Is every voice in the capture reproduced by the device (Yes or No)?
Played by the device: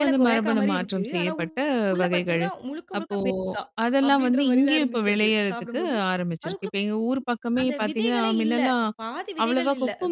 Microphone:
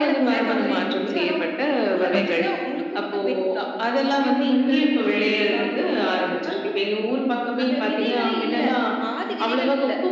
No